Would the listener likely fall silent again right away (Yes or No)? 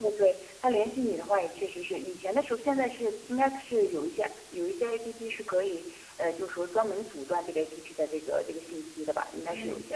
No